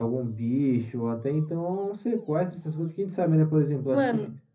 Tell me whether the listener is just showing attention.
Yes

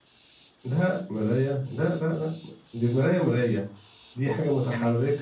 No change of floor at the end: Yes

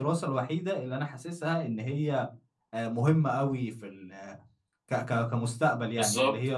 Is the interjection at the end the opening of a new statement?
Yes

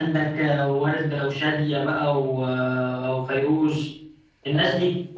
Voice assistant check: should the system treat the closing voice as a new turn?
Yes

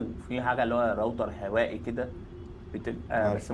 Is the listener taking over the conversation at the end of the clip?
No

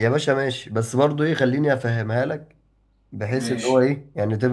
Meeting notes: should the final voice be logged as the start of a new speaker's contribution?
No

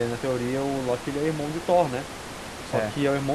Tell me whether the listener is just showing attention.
Yes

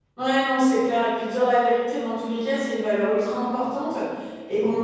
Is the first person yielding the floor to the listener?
No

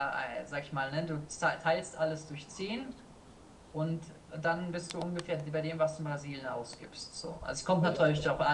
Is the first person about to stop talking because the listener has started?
No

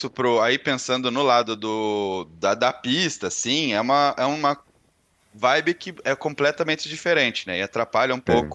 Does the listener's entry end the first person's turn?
No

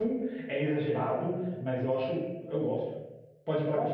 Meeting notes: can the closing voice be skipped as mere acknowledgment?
Yes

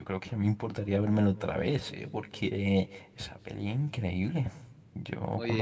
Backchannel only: No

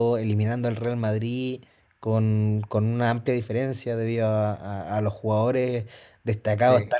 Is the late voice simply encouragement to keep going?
Yes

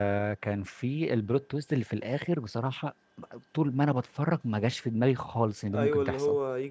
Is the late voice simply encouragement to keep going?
No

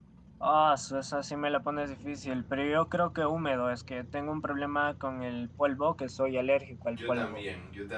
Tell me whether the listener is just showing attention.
No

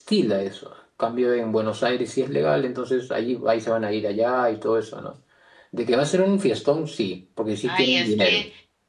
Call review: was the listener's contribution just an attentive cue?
No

